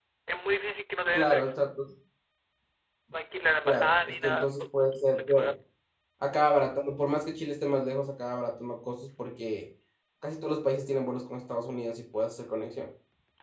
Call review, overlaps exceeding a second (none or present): present